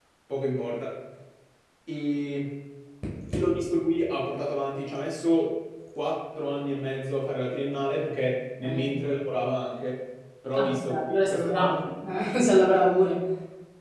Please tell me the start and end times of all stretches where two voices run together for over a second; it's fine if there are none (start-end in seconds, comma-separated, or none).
10.6-11.8